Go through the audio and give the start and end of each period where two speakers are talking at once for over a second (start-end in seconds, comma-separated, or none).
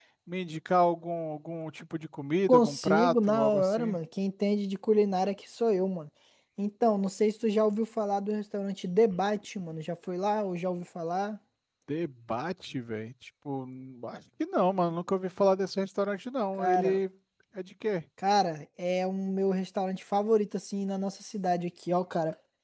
2.5-4.0